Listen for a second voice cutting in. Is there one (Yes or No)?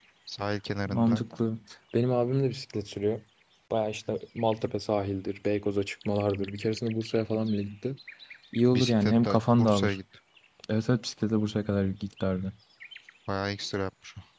Yes